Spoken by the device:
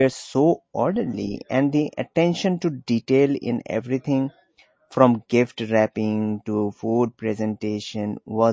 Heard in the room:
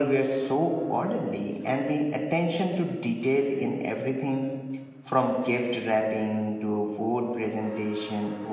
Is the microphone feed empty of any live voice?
Yes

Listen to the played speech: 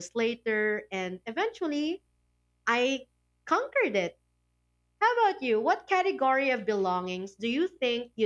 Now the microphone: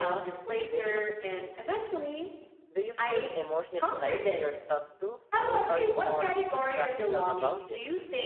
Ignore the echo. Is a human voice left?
Yes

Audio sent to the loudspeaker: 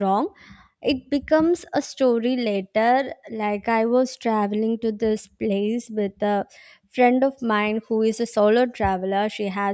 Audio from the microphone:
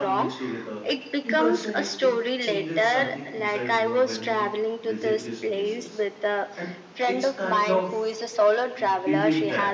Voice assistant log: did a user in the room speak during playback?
Yes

